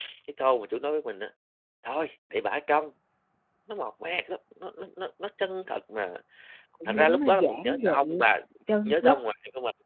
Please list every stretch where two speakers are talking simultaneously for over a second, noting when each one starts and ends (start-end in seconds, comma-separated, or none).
6.8-8.2